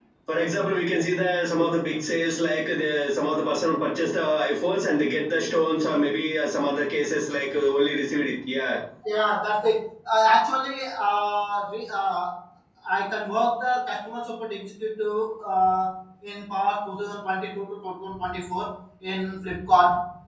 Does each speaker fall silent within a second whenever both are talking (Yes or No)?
Yes